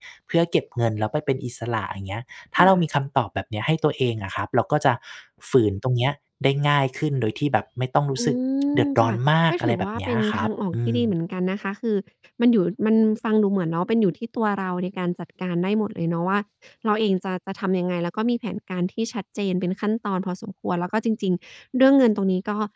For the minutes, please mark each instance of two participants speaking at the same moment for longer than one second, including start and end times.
9.5-11.0

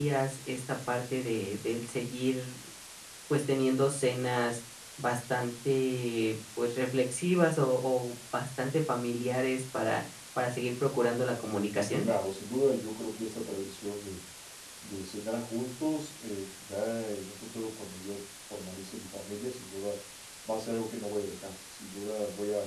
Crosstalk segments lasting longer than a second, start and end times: none

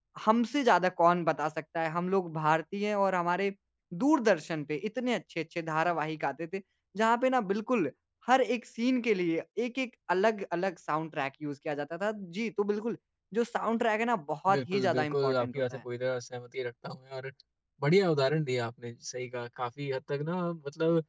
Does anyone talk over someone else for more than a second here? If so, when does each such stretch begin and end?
14.5-15.8

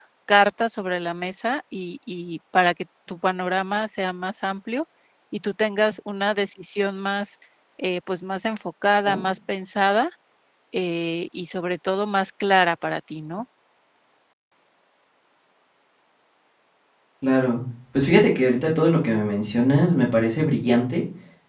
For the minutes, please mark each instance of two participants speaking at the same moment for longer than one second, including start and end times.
none

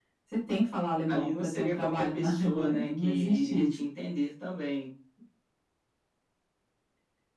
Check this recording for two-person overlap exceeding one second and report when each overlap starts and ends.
1.1-3.8

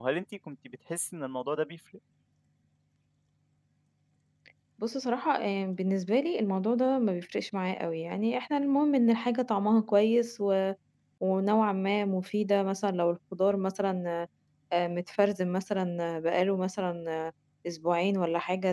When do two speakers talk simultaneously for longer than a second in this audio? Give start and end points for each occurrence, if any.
none

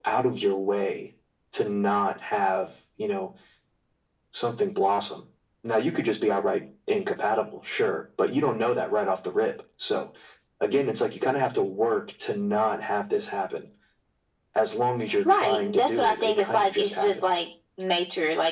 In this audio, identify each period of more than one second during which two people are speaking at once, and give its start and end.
15.2-17.3

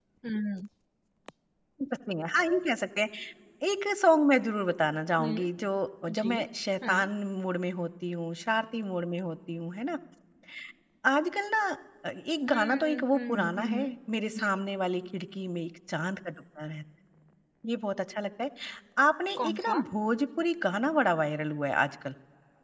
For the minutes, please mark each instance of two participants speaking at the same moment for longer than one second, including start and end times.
12.5-13.9

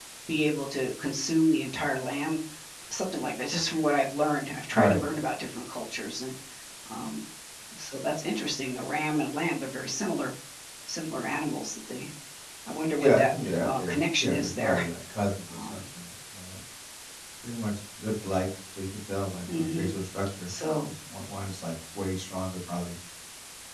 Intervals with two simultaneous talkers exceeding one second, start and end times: 13.0-14.8

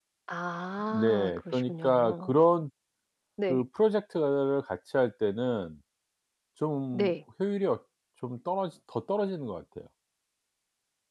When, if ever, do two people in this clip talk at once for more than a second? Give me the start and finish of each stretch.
0.8-2.4

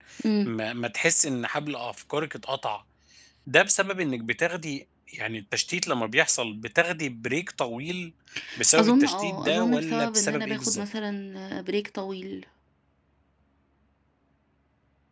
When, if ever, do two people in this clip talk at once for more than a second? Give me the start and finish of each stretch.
8.8-10.8

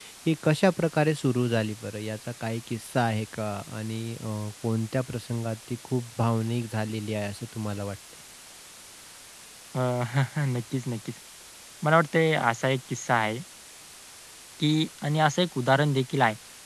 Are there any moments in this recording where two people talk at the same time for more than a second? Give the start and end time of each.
none

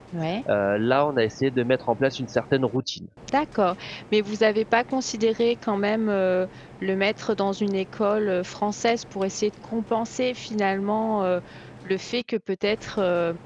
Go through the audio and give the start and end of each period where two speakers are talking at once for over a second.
none

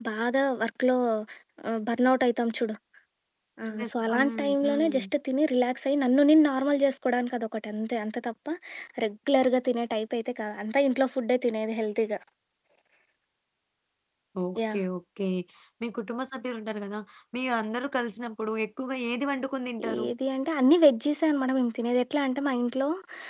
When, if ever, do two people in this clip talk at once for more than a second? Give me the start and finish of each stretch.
3.8-5.0

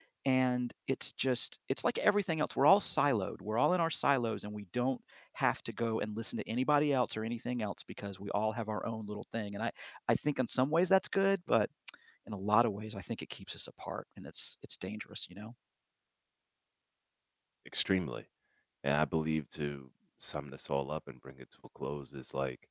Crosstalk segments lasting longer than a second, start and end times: none

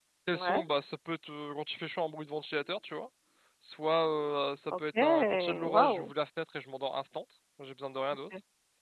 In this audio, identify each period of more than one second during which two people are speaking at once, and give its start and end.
4.8-6.1

